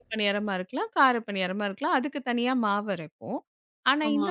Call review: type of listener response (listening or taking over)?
listening